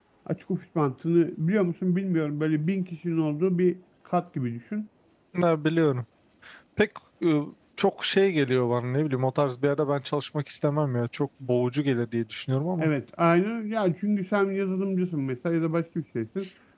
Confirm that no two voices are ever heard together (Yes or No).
Yes